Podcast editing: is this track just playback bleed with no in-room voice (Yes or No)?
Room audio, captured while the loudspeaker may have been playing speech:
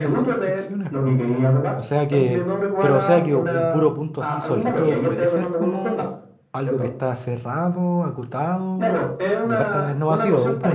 No